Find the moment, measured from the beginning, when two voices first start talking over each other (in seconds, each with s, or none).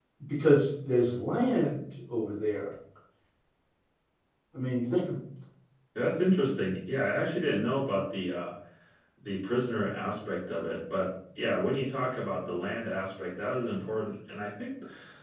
none